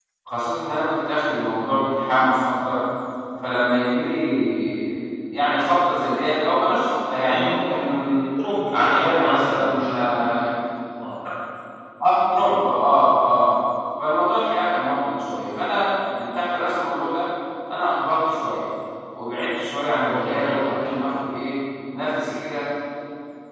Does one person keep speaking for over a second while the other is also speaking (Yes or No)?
Yes